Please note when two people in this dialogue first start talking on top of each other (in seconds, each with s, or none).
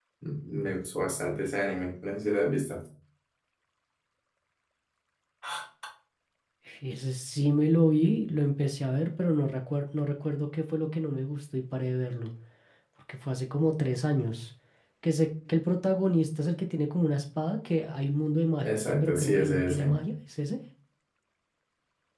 18.6 s